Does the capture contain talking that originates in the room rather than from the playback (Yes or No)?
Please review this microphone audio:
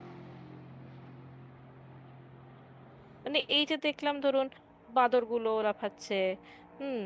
Yes